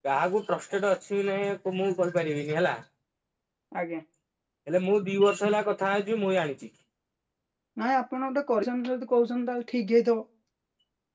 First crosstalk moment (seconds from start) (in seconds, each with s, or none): none